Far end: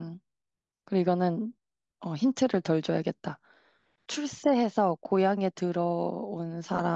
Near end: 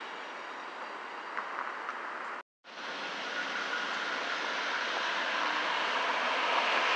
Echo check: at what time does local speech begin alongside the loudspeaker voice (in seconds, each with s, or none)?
none